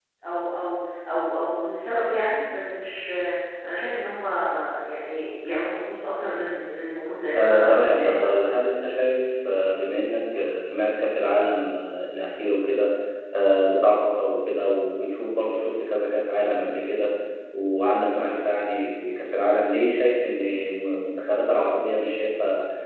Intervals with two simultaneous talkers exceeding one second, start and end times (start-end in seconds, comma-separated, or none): 7.3-8.5